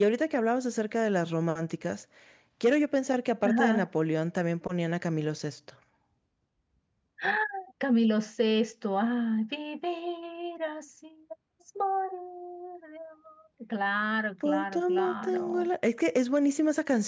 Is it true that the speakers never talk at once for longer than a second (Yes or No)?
No